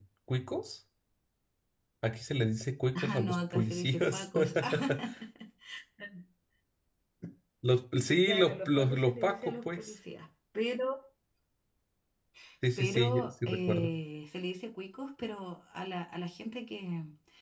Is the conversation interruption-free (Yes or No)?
No